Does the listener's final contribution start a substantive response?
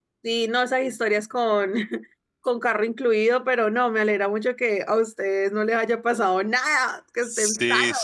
Yes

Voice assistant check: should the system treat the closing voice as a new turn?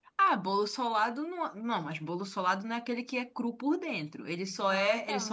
No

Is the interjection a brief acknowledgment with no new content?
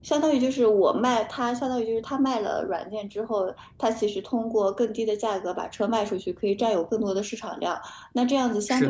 Yes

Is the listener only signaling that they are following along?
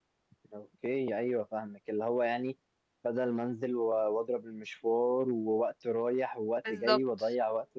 Yes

